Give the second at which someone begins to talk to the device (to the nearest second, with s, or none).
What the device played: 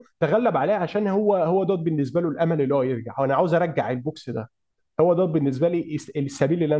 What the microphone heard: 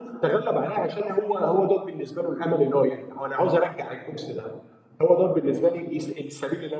none